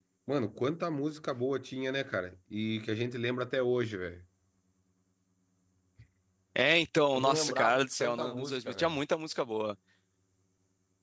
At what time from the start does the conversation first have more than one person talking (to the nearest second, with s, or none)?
7 s